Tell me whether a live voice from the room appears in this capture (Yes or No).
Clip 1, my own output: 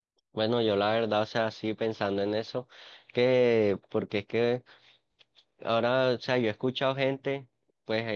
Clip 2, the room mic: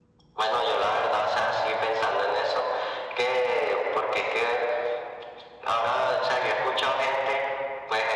No